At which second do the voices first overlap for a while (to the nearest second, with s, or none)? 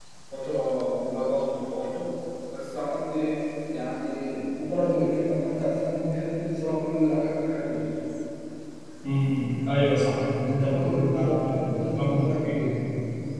11 s